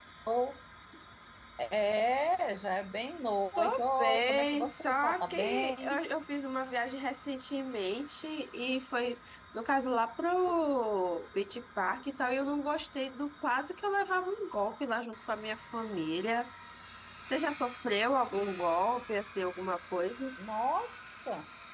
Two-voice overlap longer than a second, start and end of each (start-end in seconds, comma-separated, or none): 3.6-6.0